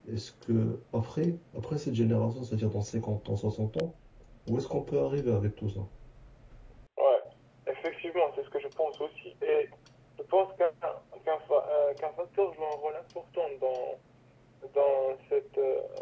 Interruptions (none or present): none